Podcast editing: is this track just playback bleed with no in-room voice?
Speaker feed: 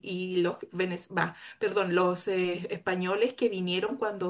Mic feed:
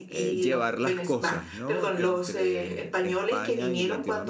No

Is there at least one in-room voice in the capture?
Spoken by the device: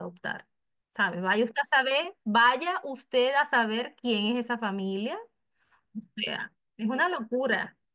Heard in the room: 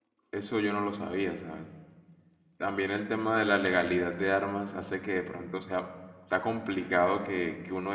Yes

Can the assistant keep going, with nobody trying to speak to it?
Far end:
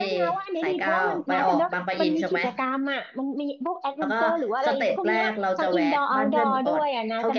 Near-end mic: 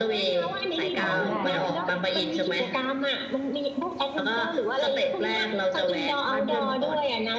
No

